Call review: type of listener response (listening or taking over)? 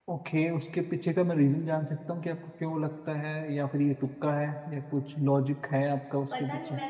taking over